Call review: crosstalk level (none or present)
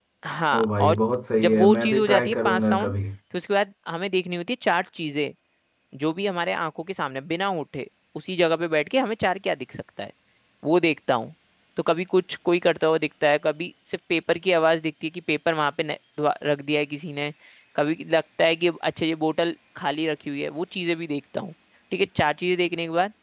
present